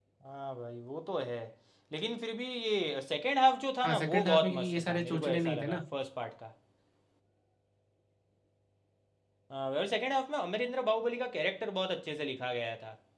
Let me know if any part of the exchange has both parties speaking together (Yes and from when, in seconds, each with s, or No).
Yes, from 3.8 s